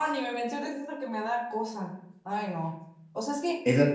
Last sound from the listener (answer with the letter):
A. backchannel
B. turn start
A